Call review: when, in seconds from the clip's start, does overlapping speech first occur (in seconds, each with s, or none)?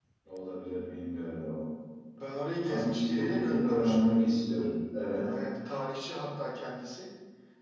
2.6 s